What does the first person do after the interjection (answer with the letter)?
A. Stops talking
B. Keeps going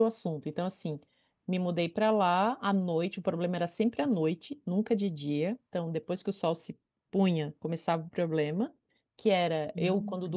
B